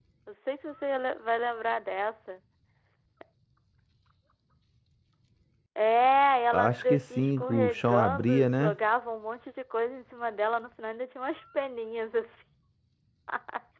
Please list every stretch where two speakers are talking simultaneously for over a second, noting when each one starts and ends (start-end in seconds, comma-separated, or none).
6.5-8.8